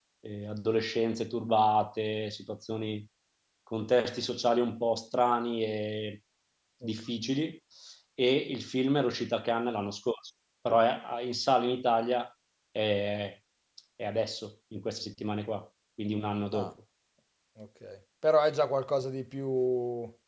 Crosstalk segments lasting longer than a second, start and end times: none

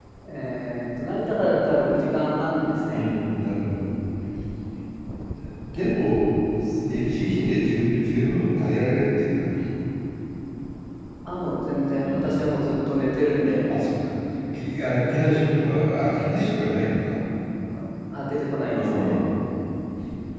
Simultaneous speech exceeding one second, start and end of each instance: none

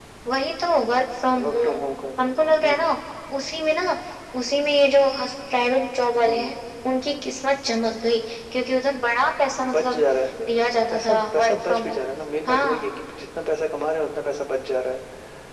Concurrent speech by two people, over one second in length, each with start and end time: 10.6-12.0

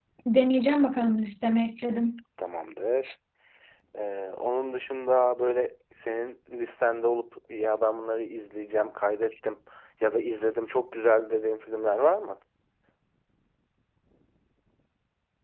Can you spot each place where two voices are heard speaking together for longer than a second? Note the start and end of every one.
none

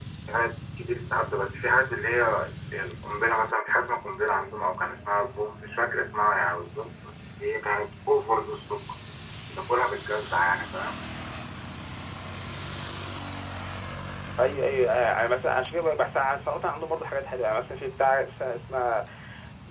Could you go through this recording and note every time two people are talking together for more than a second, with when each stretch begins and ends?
none

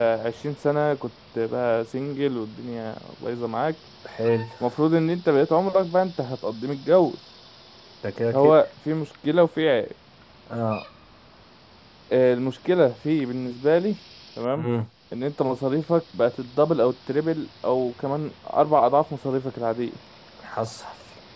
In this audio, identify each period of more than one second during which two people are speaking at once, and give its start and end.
none

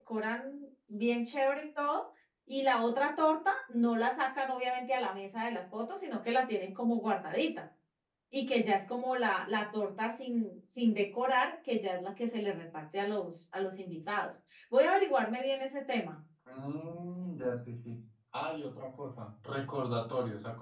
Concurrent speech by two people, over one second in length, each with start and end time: none

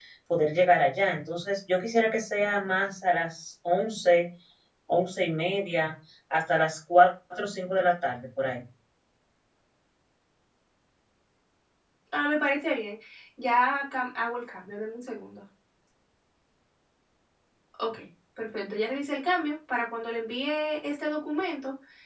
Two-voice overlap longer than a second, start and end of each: none

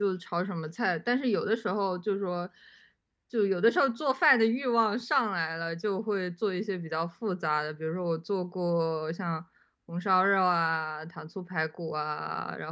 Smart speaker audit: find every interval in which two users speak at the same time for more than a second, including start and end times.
none

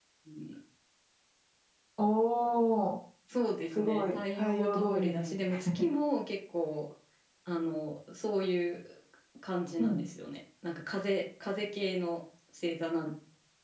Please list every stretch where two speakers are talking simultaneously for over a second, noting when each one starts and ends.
3.8-5.3

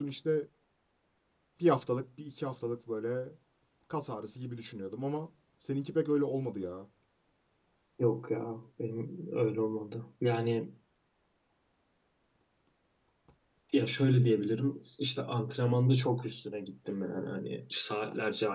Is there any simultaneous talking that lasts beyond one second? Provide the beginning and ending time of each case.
none

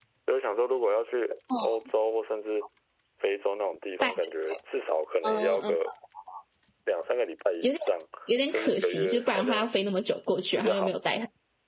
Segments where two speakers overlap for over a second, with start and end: 8.5-9.7

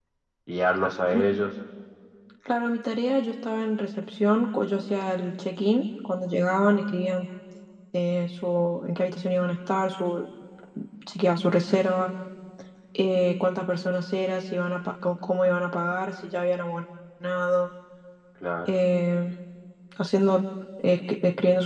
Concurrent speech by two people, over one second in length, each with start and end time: none

